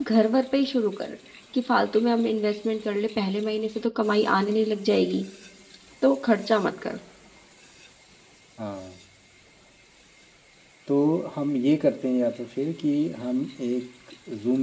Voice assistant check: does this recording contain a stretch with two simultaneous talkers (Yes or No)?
No